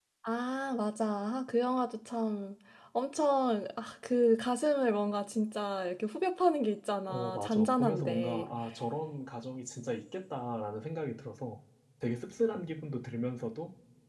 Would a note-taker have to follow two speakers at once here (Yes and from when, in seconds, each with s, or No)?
Yes, from 7.1 s